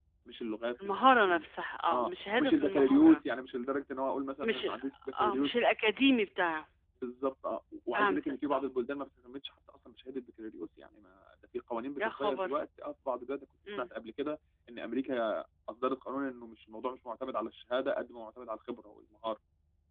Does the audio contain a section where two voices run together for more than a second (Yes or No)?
Yes